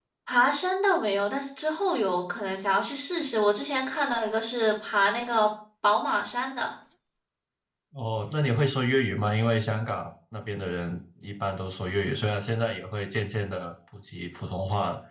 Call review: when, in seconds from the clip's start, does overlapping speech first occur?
none

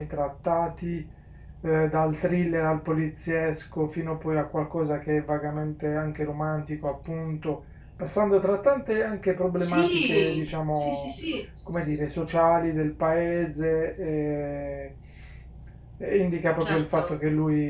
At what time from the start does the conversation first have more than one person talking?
10 s

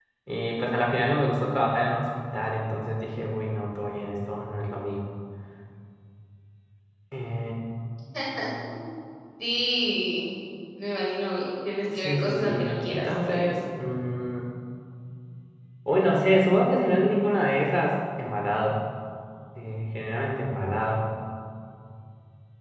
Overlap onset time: 12 s

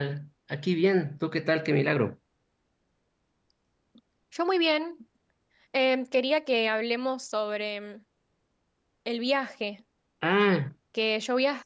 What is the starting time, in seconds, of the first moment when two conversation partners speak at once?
none

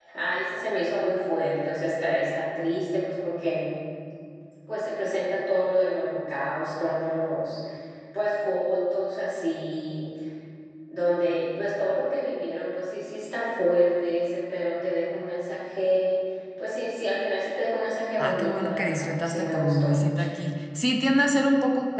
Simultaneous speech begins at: 18 s

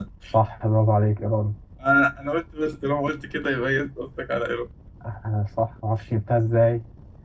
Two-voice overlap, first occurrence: none

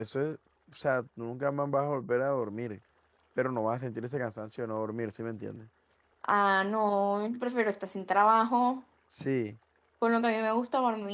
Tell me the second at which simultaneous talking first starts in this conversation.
none

